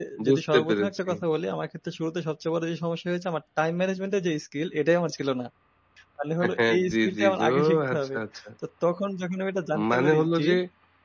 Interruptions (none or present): present